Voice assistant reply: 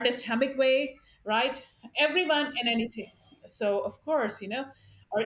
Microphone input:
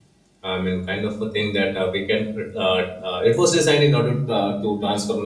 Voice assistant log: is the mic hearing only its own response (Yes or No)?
No